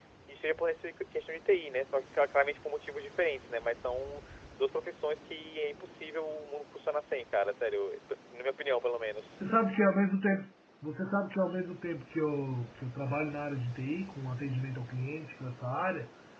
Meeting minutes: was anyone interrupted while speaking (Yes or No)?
No